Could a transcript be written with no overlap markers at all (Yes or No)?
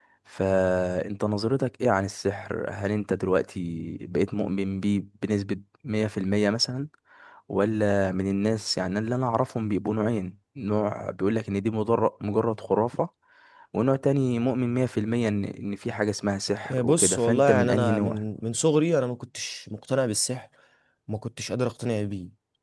No